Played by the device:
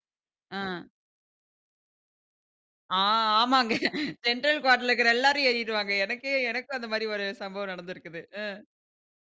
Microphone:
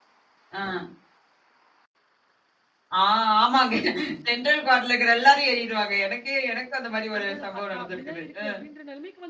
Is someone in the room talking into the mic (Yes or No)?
Yes